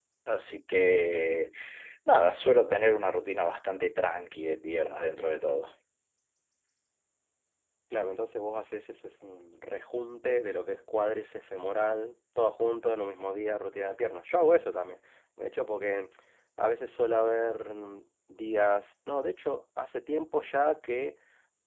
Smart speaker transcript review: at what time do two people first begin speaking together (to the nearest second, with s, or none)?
none